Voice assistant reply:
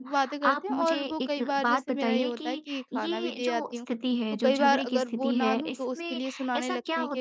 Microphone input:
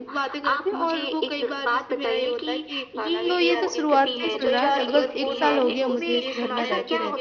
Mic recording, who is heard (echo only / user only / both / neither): both